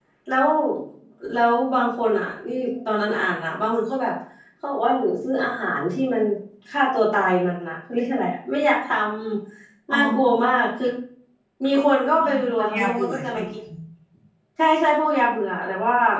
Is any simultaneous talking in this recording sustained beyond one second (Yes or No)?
Yes